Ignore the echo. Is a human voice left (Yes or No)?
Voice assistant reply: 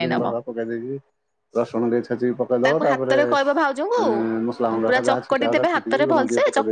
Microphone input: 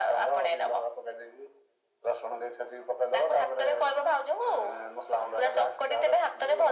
No